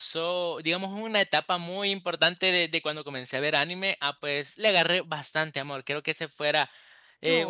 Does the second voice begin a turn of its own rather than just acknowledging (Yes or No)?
No